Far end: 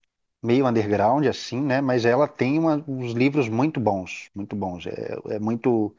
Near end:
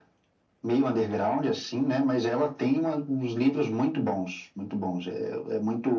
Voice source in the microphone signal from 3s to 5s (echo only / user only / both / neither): echo only